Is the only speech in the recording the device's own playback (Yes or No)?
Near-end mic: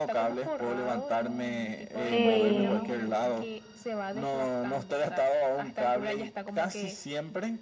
No